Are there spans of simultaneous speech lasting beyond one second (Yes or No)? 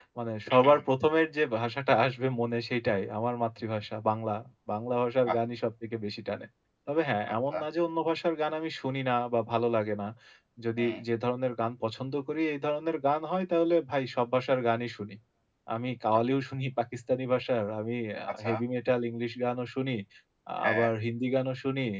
No